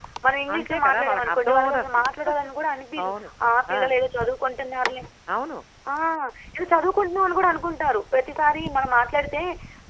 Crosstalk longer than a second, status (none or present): present